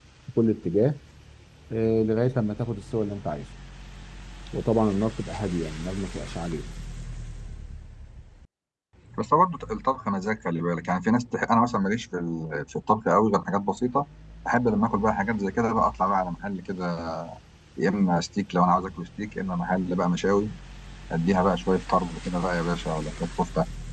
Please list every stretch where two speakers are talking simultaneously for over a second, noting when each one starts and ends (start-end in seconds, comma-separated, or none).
none